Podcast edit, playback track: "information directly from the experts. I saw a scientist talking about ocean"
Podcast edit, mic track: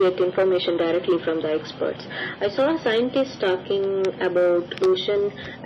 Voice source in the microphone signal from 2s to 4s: echo only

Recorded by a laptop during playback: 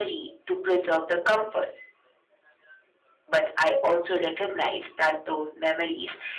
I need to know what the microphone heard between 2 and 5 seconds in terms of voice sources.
echo only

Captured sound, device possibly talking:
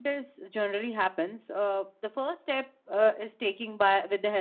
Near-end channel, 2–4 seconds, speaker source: user only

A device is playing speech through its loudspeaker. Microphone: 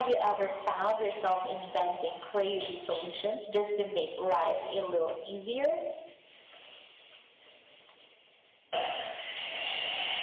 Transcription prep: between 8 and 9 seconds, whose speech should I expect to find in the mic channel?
neither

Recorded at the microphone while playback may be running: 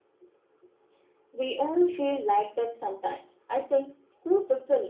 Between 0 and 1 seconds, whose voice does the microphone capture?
neither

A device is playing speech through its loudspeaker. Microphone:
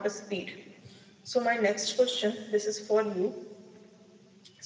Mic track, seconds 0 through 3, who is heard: echo only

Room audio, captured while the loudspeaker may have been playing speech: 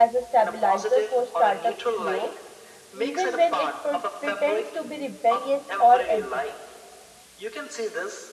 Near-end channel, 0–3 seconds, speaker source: both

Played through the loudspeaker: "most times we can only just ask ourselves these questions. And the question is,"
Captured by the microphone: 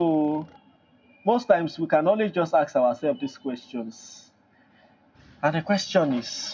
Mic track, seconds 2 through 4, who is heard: echo only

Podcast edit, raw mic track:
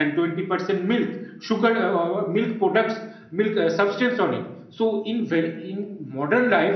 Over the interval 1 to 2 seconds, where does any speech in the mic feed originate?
user only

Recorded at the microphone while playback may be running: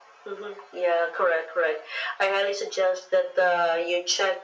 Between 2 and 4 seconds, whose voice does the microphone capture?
echo only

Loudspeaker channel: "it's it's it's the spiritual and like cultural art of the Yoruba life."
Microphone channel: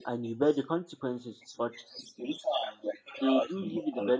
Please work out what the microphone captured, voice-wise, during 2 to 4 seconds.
both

